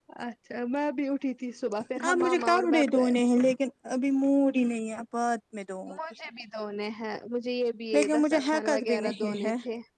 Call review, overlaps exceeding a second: present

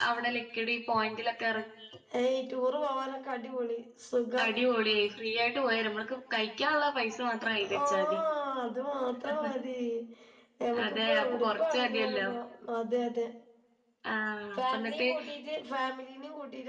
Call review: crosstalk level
present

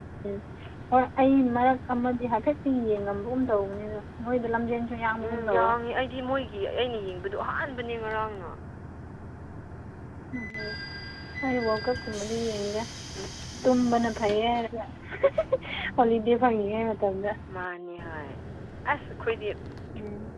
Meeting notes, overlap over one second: none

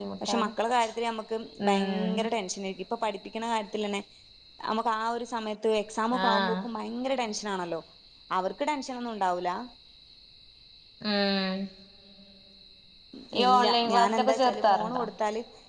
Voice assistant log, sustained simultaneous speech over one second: present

